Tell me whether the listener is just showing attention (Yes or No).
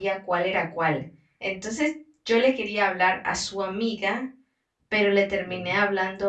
Yes